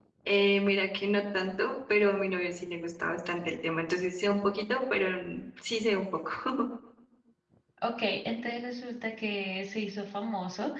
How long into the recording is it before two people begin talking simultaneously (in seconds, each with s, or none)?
none